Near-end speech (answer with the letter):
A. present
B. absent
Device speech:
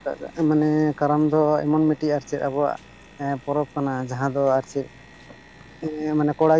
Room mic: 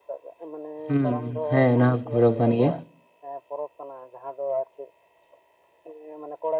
A